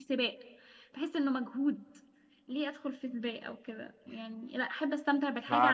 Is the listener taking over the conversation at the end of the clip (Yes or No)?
Yes